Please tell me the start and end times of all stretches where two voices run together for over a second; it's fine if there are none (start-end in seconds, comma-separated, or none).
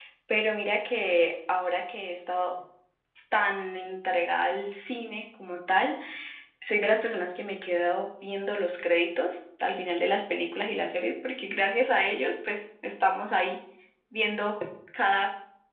none